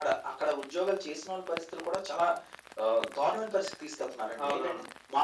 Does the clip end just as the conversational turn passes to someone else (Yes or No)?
No